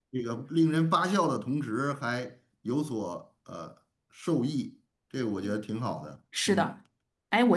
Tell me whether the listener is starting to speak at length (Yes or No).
Yes